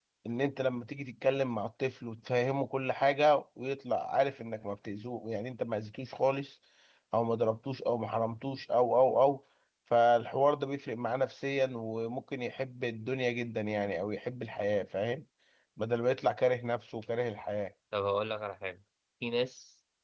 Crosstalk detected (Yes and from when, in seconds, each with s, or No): No